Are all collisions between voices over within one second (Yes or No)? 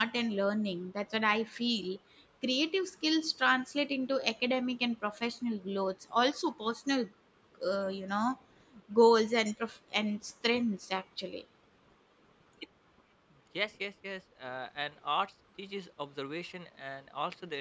Yes